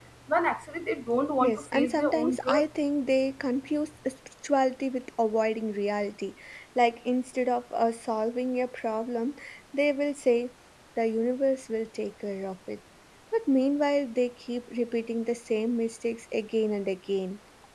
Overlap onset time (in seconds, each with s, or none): 1.4 s